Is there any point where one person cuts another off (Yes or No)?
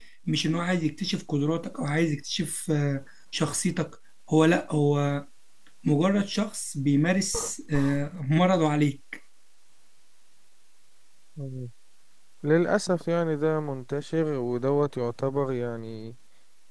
No